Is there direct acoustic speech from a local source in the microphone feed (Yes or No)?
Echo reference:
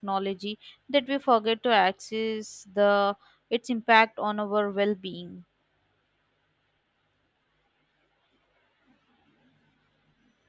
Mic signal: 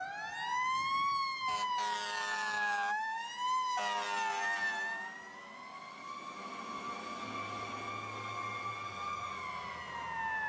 No